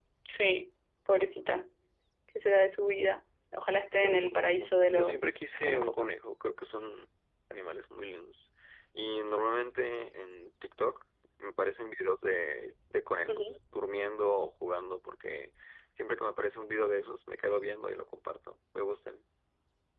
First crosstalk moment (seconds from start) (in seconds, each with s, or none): 4.0 s